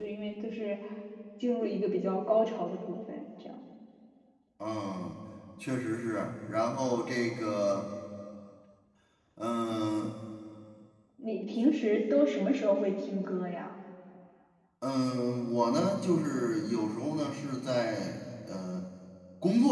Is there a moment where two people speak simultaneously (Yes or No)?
No